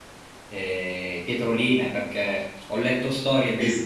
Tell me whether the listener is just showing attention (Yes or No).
Yes